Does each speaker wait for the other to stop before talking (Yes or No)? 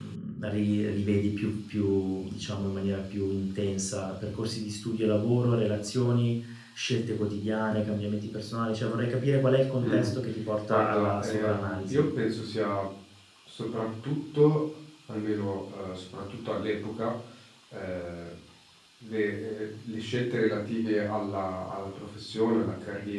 No